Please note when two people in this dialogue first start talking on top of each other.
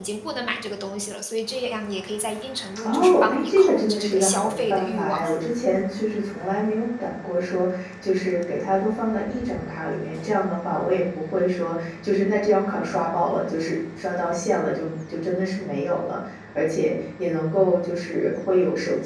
2.8 s

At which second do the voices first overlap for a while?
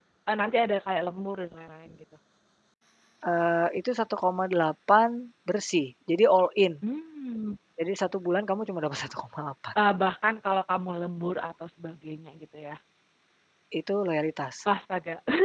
none

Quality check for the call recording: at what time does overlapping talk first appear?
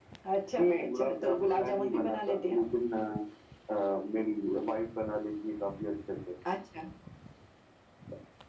0.6 s

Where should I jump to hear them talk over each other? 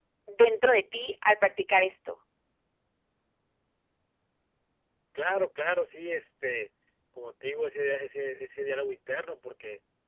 none

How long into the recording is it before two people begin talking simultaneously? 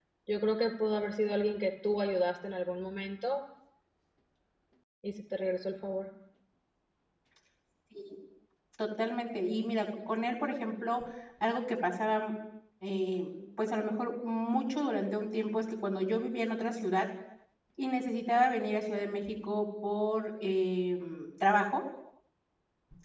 none

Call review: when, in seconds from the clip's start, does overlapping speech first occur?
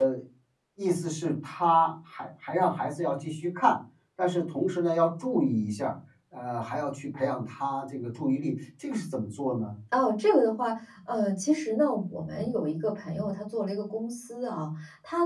none

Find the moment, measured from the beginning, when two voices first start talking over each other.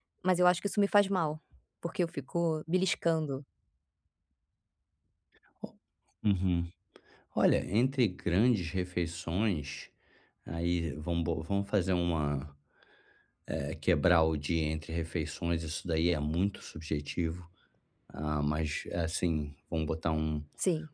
none

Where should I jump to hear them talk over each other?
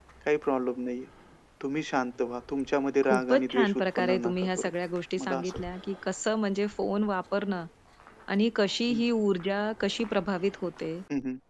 3.0 s

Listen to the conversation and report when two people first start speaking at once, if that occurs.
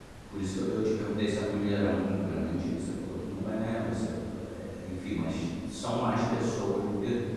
none

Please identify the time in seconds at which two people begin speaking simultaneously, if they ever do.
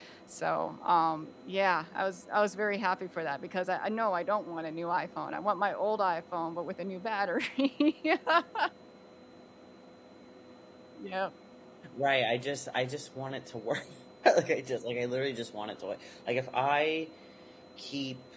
none

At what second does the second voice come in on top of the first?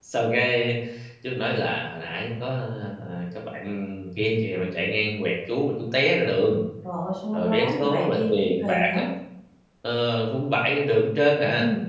7.3 s

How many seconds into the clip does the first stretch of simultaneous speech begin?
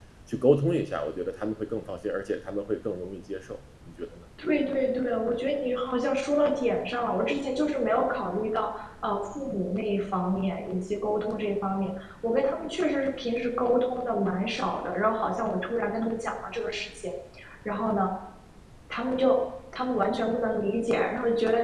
none

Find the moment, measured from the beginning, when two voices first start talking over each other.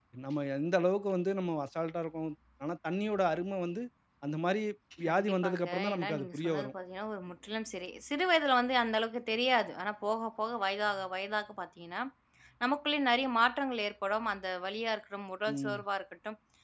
5.1 s

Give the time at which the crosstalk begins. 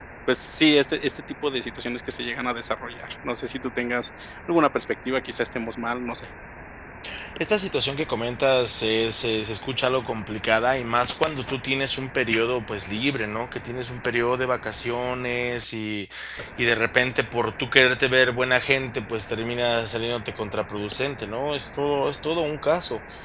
none

